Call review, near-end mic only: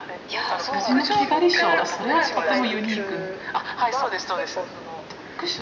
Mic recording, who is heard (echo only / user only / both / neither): both